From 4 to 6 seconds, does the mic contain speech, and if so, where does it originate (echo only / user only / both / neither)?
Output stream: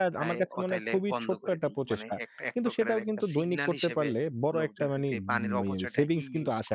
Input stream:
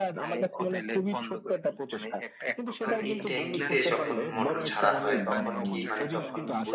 both